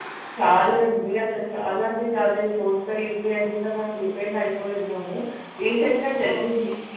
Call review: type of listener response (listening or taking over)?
listening